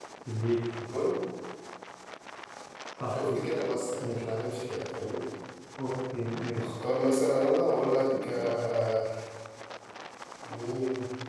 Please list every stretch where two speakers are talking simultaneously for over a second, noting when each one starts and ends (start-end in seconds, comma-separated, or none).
none